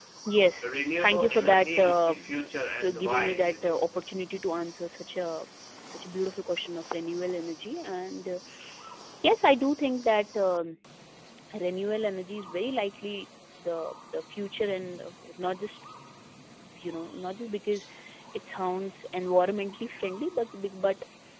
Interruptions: present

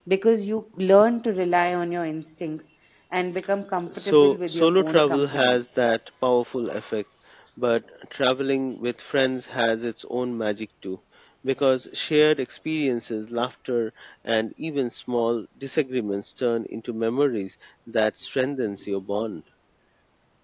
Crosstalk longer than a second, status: present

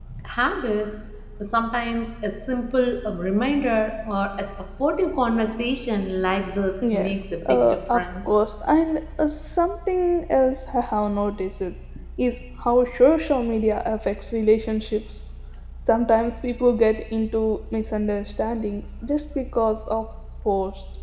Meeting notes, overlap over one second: present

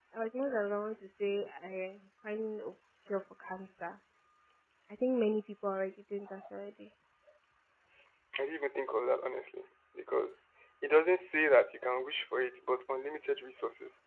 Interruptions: none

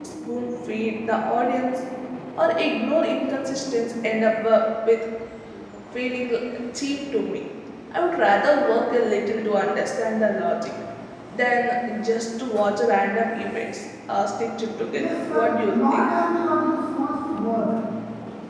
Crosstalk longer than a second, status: present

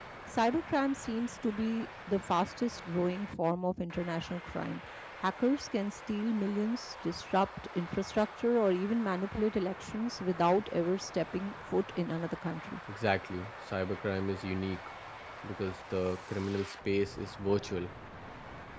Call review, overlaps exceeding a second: none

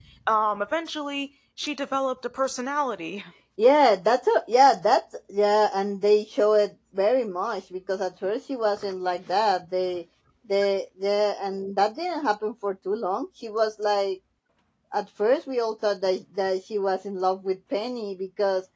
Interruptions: none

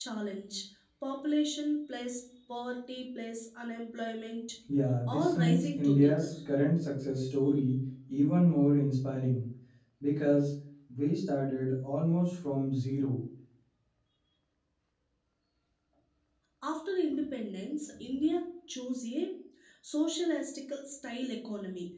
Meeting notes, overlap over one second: present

